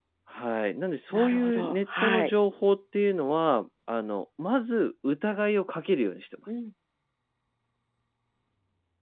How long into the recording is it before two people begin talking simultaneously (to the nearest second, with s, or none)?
1 s